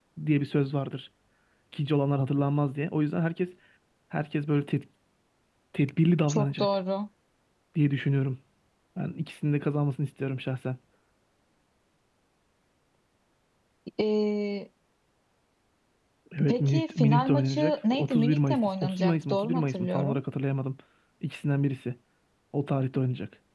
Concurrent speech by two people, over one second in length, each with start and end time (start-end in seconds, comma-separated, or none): 16.5-20.2